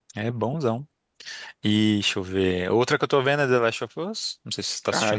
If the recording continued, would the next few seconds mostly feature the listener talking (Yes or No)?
Yes